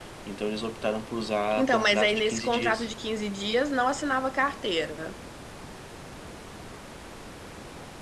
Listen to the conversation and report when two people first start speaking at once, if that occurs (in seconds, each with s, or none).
1.6 s